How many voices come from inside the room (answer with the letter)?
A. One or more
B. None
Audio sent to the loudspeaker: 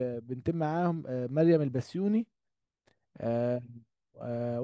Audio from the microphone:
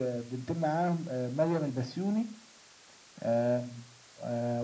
B